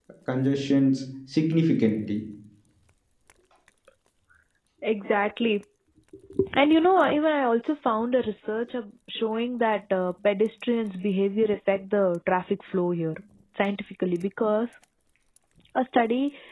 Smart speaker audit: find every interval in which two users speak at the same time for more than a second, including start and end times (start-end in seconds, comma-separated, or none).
none